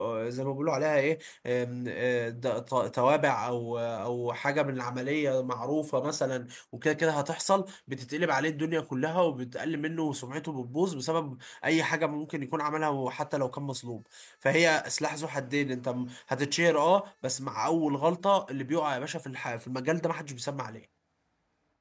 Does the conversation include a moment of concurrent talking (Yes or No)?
No